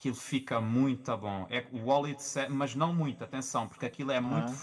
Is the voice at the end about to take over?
No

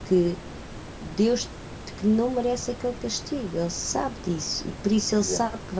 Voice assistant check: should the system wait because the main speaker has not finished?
Yes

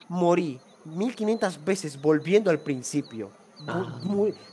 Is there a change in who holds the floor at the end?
No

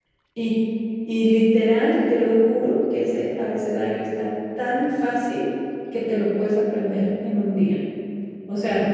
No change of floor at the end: Yes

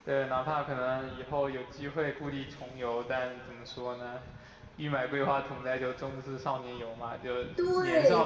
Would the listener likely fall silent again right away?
No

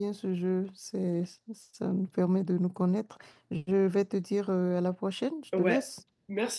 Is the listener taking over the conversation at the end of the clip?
Yes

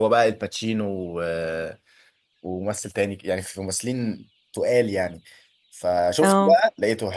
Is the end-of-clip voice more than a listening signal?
No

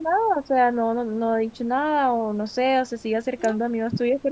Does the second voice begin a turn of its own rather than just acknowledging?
No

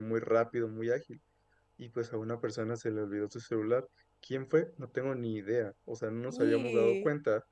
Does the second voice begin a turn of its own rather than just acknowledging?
No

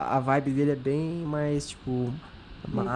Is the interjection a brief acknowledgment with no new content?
Yes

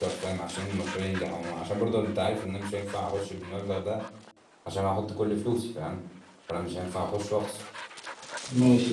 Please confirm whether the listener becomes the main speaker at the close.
Yes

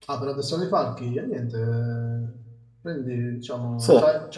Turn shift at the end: No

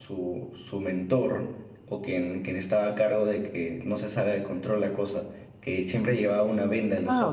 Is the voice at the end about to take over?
Yes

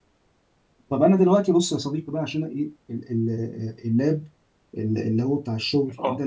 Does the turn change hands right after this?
No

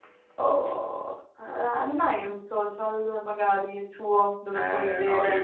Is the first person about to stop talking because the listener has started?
Yes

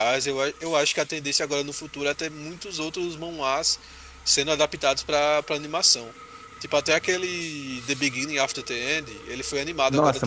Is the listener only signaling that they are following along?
No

